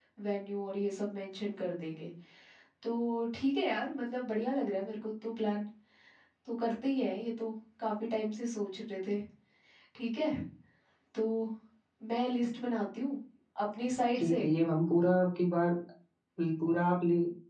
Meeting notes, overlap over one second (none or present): none